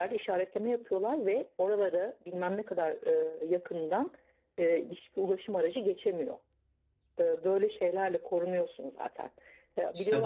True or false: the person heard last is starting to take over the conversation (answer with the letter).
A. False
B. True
B